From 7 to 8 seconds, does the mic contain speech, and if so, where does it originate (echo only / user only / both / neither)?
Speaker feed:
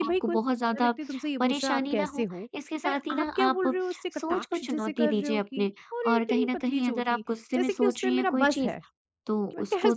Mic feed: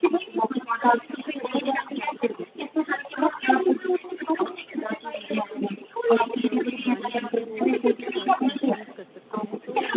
both